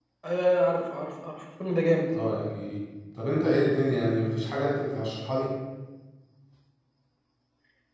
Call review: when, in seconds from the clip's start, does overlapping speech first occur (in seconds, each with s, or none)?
none